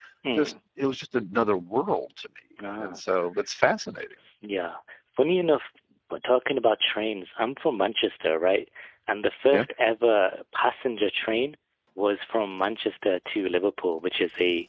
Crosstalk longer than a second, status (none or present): none